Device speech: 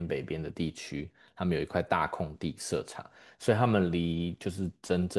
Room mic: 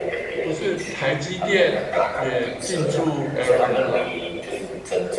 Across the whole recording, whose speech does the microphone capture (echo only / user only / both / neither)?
both